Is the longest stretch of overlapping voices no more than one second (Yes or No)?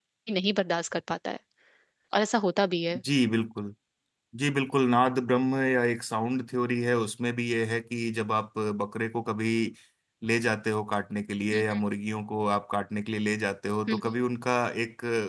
Yes